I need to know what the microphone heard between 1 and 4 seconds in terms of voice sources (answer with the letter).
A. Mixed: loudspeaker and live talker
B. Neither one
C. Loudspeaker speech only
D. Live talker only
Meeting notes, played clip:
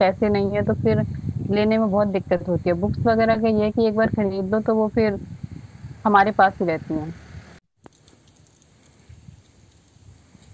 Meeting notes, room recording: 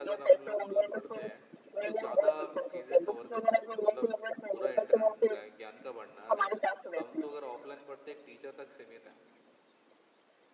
A